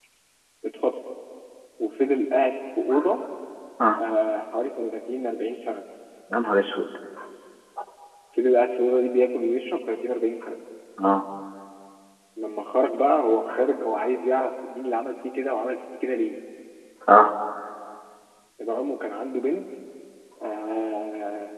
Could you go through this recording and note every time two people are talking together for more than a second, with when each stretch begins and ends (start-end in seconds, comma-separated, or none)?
none